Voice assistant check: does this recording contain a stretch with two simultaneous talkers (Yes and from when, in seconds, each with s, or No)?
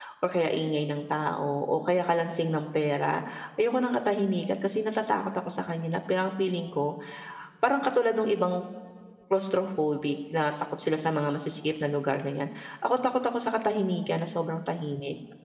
No